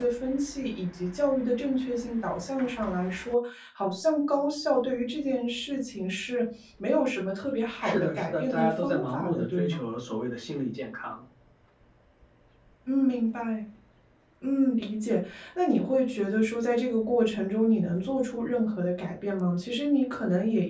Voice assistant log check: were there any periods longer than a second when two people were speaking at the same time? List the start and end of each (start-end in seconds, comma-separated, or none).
7.8-9.8